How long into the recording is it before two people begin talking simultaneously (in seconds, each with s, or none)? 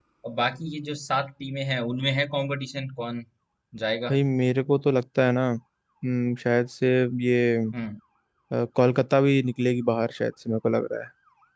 none